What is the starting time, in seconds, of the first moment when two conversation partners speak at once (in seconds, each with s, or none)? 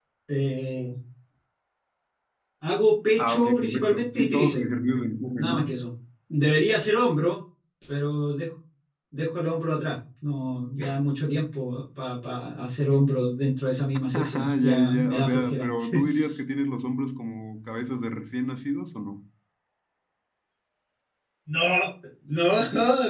3.2 s